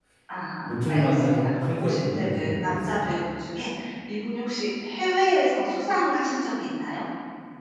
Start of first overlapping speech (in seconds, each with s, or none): 0.9 s